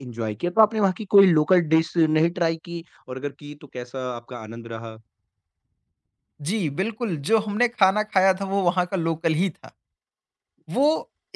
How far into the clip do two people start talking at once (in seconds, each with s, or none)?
none